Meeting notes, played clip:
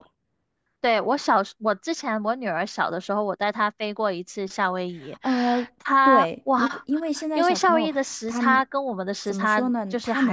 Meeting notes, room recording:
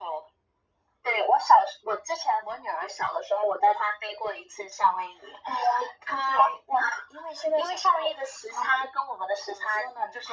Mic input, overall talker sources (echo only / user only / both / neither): echo only